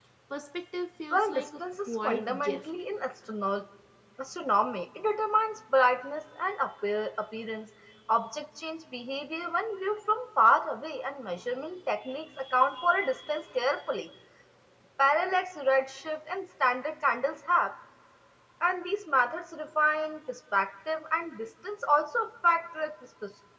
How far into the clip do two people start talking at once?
1 s

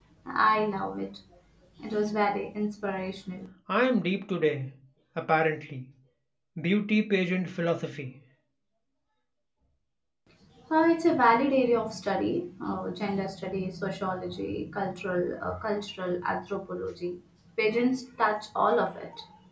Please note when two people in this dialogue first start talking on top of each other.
none

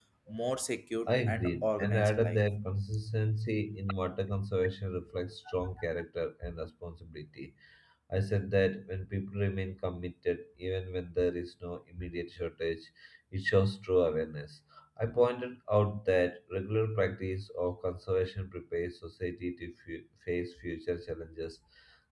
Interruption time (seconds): 1 s

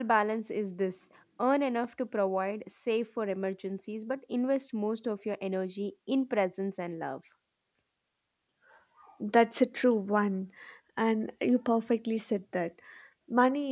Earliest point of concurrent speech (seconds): none

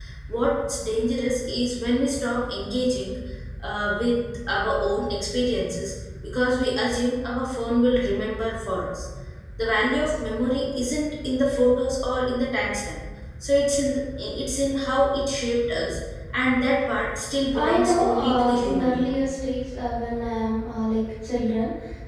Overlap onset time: 18 s

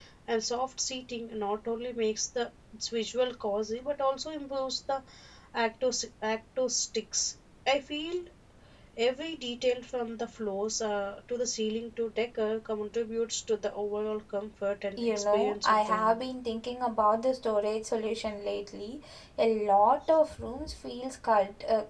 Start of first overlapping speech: 15 s

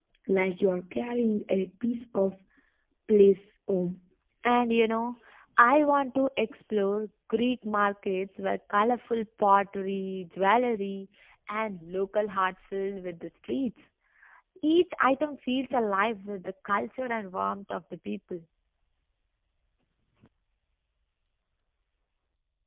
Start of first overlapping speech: none

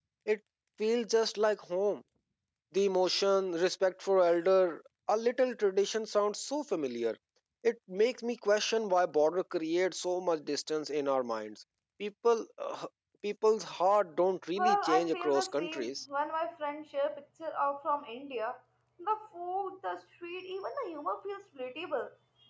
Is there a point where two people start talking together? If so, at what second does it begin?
15 s

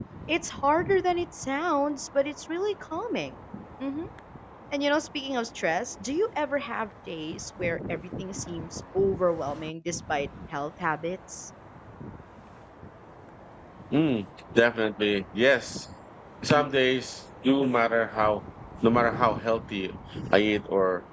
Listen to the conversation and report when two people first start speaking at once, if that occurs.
none

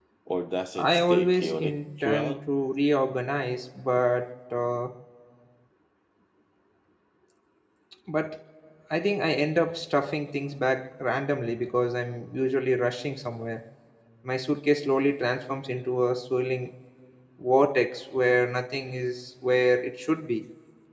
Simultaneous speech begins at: 1 s

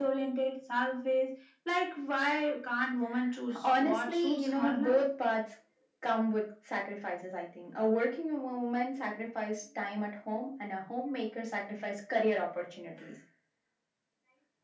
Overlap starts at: 4 s

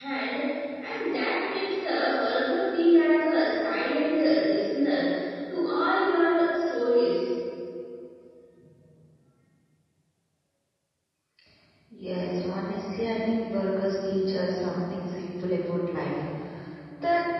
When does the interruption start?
none

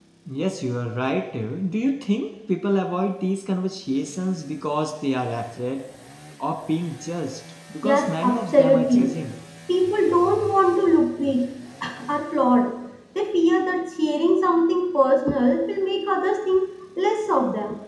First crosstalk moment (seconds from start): 8 s

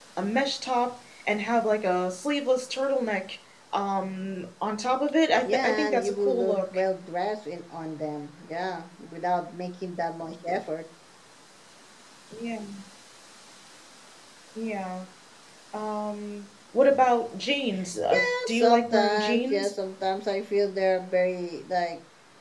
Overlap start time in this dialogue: 5 s

